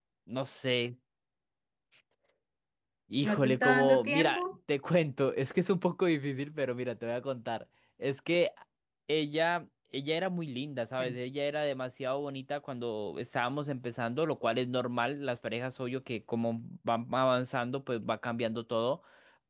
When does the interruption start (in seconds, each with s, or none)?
3.2 s